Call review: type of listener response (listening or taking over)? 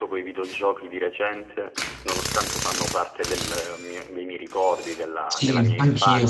taking over